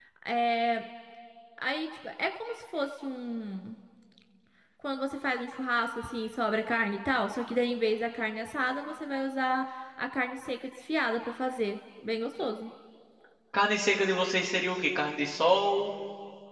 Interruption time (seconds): none

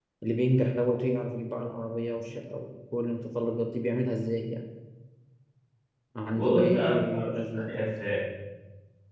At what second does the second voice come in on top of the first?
6.3 s

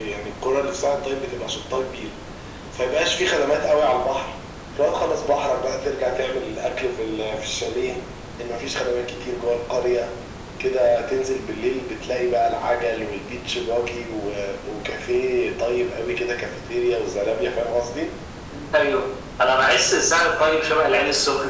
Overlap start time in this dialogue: none

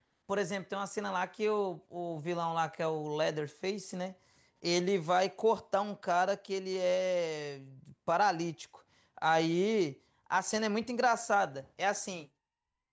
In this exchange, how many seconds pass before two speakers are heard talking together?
none

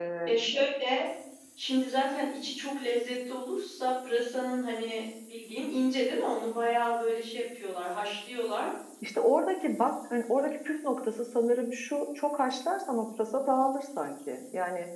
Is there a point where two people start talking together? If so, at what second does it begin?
none

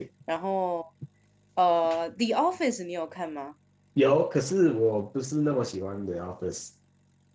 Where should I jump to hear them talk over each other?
none

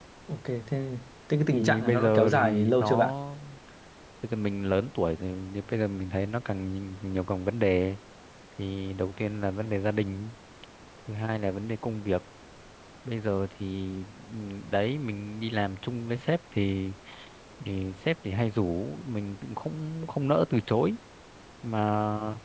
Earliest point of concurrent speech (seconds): 1.5 s

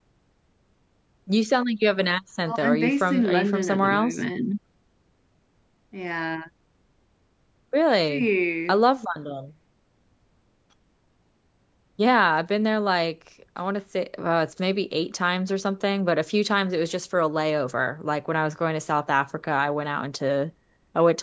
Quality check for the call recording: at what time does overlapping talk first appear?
2.5 s

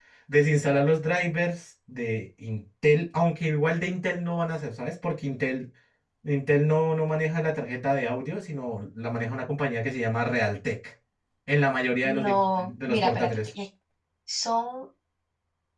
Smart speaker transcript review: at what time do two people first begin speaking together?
12.2 s

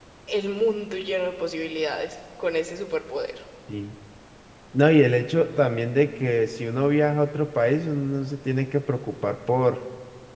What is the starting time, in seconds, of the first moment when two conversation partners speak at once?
none

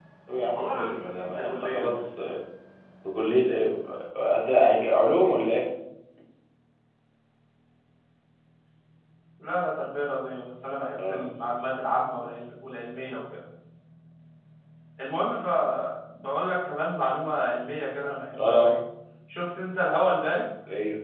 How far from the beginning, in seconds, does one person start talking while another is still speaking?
0.6 s

